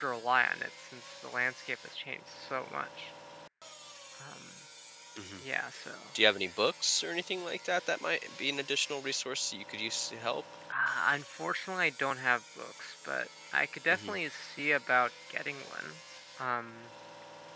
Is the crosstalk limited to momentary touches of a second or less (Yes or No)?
Yes